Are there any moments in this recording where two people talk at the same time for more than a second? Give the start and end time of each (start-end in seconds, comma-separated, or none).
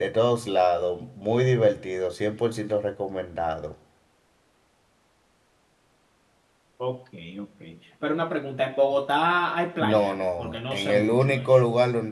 9.8-11.6